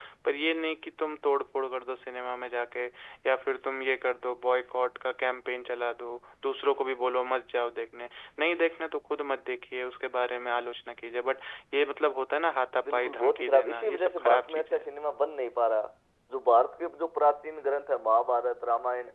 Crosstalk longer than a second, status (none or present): present